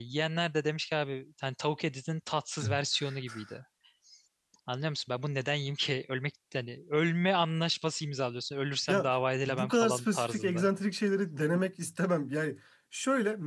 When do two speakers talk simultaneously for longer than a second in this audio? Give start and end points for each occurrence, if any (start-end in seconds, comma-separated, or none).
9.5-10.7